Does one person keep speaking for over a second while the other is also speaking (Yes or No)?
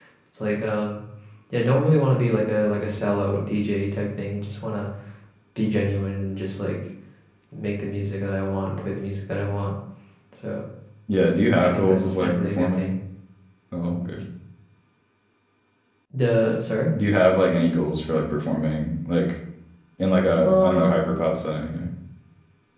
Yes